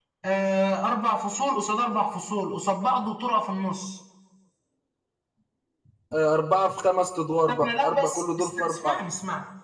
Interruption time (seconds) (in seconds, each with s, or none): 7.6 s